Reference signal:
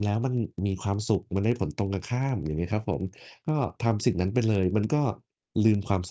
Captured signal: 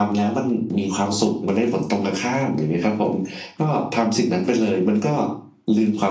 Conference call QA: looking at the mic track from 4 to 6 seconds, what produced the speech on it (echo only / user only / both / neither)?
echo only